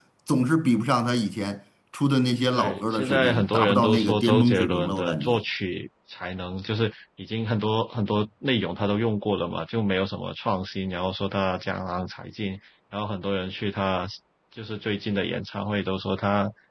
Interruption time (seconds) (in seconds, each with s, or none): 2.5 s